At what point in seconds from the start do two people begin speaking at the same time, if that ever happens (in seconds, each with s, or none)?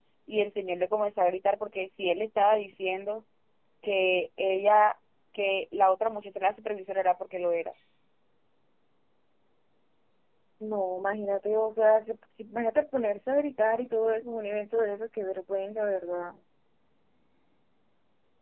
none